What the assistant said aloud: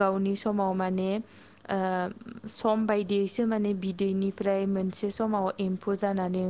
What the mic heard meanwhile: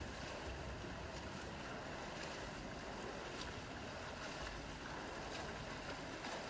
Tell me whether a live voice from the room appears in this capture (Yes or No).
No